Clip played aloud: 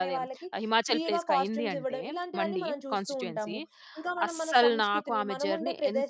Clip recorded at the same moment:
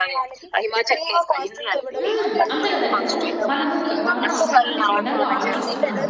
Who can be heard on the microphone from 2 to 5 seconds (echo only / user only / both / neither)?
both